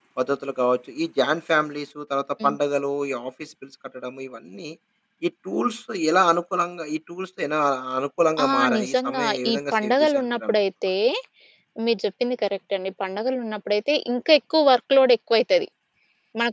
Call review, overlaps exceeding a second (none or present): present